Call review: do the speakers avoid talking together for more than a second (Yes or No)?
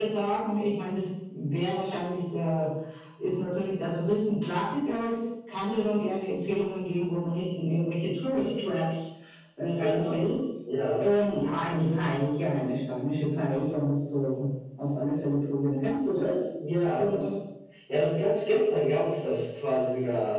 Yes